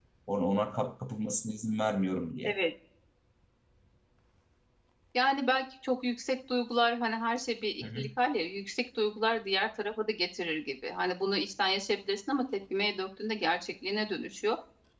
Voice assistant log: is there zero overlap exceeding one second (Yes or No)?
Yes